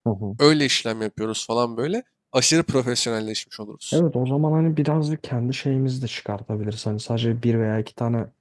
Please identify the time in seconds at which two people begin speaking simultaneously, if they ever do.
none

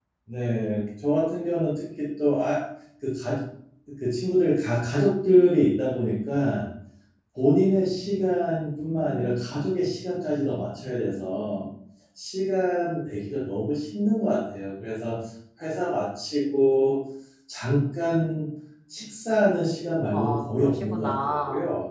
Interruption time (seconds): 20.1 s

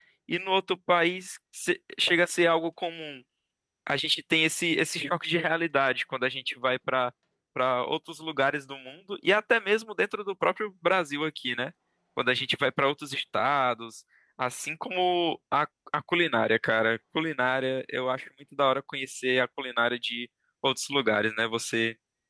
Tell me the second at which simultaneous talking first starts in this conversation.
none

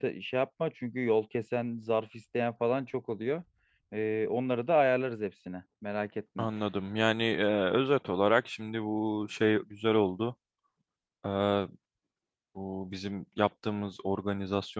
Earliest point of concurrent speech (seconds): none

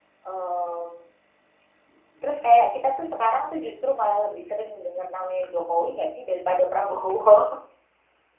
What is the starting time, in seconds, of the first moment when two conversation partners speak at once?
none

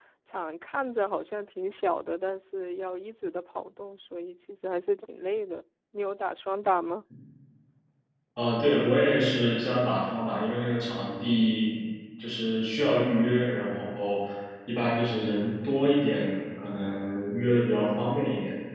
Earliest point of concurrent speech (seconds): none

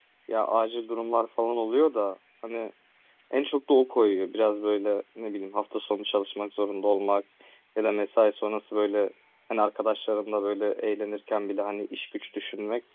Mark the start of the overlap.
none

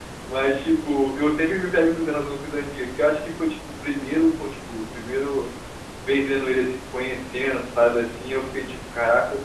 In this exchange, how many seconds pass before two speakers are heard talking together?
none

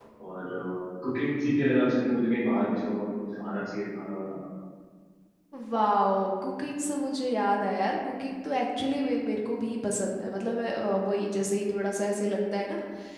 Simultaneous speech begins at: none

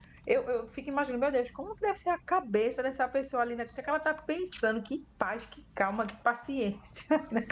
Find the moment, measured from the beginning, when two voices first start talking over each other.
none

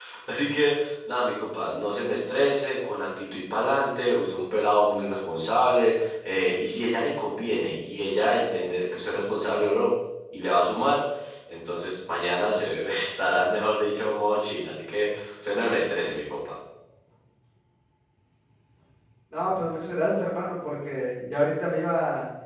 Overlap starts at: none

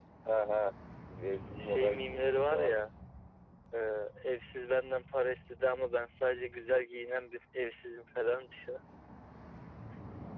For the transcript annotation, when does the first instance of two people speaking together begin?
1.6 s

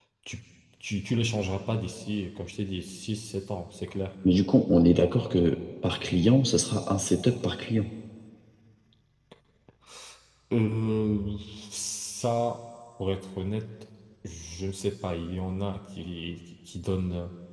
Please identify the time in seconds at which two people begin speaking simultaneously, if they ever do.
none

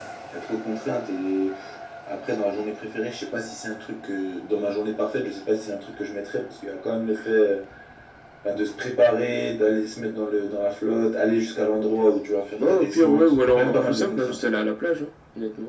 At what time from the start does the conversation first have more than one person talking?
12.6 s

